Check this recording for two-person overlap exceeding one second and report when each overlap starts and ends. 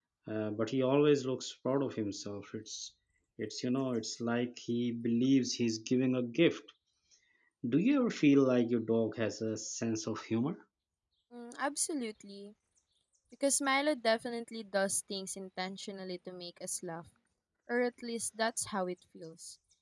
none

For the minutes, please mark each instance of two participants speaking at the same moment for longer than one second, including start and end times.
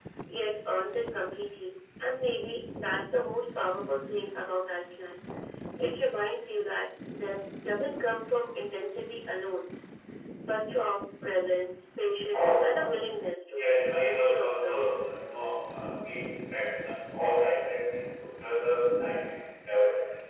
13.6-14.9

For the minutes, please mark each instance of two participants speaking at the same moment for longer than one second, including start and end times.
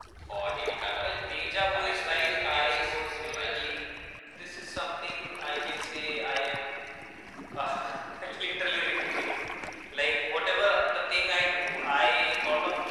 1.7-3.6

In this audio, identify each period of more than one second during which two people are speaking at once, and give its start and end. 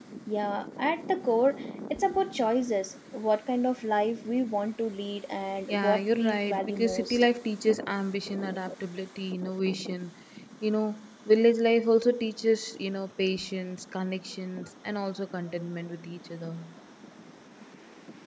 5.7-7.2

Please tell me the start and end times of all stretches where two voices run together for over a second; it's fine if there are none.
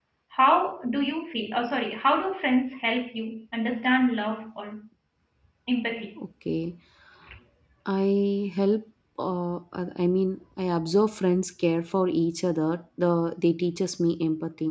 none

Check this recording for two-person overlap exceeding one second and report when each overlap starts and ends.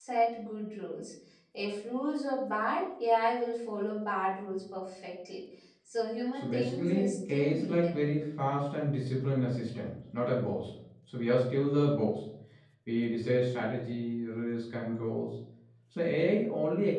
6.3-8.0

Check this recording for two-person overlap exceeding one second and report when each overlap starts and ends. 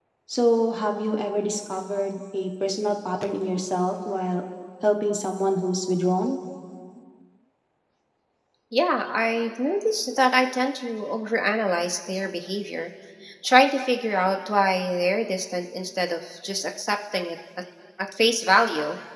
none

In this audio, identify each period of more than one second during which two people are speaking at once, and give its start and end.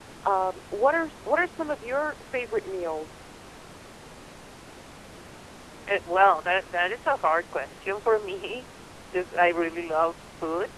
none

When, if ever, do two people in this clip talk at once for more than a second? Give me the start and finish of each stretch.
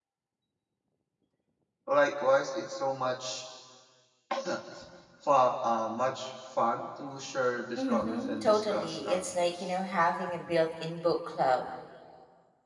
7.8-9.7

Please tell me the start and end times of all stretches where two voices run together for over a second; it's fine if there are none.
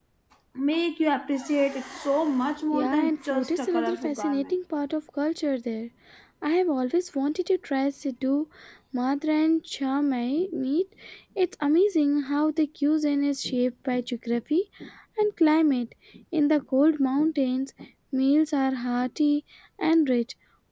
2.7-4.6

